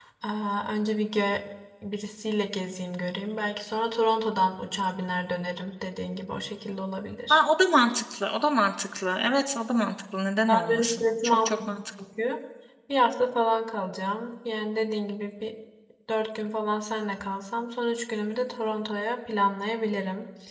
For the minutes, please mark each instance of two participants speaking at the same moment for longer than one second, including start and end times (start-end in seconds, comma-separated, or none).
10.5-11.8